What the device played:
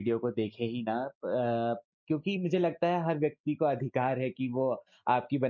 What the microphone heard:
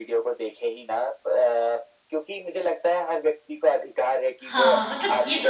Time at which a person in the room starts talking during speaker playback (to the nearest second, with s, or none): 5 s